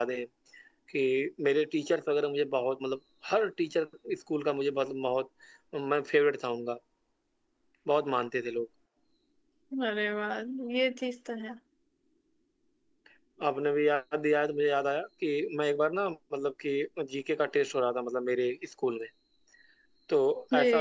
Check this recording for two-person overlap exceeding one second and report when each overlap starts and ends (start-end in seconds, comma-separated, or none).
none